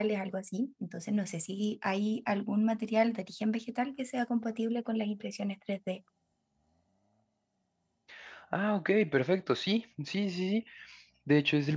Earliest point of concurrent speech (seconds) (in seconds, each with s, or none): none